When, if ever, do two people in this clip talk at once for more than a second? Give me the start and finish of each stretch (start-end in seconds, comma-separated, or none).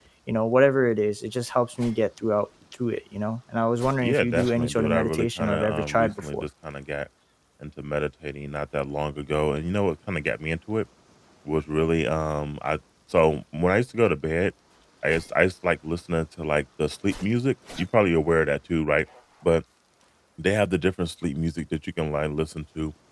4.0-6.4